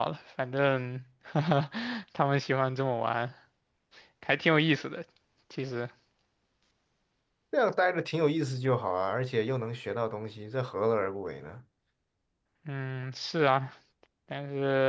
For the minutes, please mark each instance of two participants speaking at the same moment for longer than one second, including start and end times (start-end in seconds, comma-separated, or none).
none